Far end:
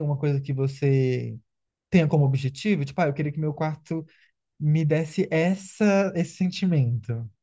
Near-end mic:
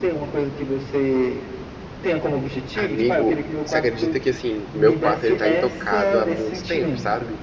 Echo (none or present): present